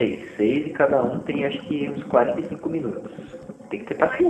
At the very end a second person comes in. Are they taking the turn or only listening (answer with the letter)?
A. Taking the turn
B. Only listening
A